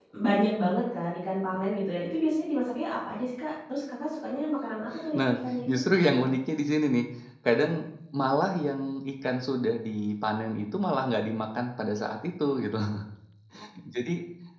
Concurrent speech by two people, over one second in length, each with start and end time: none

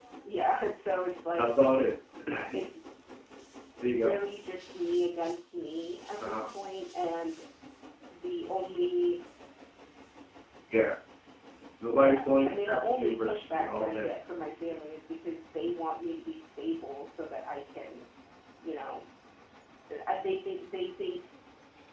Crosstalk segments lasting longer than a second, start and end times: 12.0-14.1

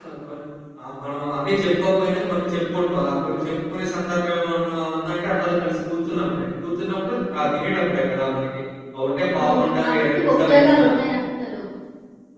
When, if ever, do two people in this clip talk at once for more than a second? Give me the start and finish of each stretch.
9.4-10.8

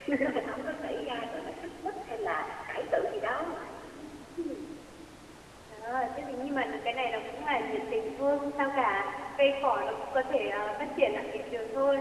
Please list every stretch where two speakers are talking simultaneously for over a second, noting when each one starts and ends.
none

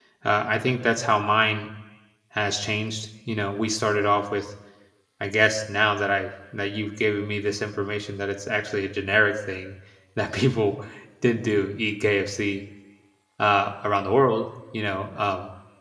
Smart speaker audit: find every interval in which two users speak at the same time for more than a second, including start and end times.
none

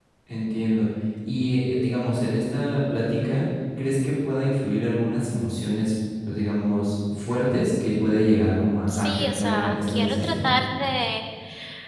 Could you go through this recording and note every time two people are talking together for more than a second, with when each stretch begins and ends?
8.9-10.5

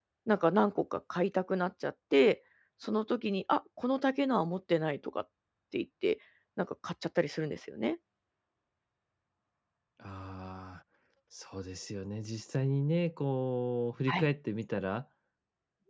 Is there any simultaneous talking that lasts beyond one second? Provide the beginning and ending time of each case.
none

